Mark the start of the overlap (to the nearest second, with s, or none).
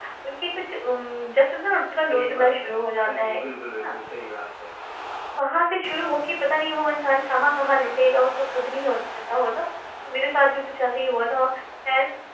2 s